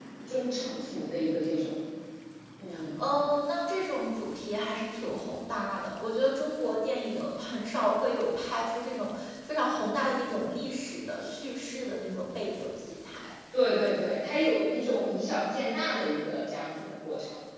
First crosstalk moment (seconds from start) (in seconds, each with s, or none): none